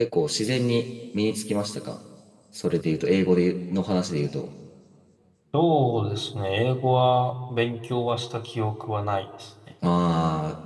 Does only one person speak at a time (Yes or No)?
Yes